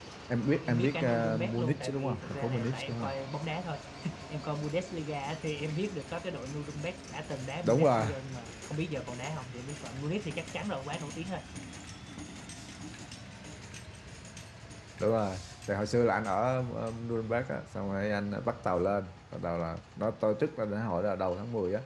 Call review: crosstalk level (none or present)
present